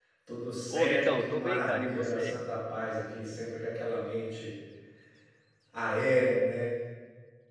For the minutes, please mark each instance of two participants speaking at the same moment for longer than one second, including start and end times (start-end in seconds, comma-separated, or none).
0.7-2.4